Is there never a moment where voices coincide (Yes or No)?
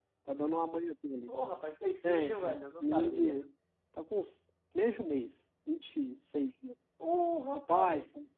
No